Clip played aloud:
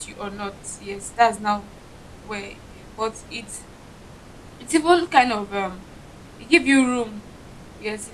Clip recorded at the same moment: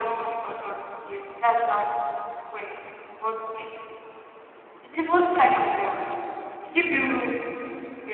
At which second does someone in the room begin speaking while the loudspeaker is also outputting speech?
none

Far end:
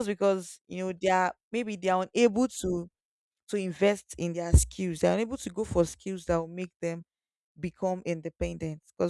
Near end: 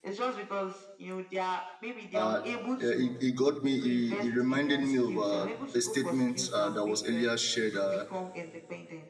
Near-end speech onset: 2.1 s

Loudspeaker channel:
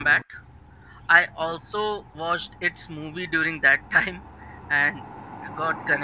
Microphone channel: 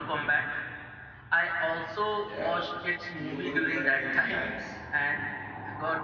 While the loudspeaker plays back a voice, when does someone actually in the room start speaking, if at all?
2.2 s

